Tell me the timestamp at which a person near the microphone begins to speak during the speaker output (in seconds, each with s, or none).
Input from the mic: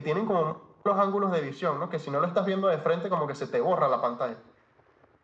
none